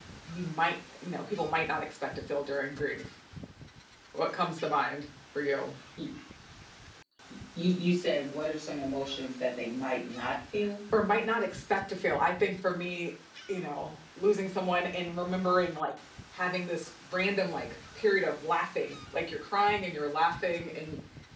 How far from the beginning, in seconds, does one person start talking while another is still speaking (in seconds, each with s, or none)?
none